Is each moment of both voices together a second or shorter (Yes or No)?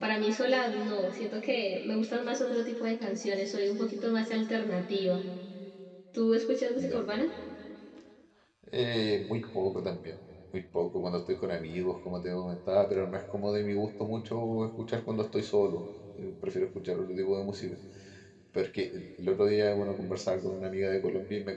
Yes